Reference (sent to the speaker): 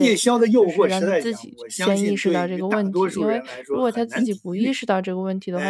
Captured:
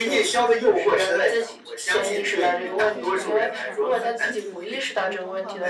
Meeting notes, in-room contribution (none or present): present